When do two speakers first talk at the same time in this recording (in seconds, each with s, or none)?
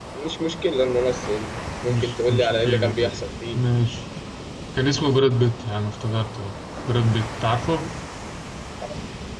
1.8 s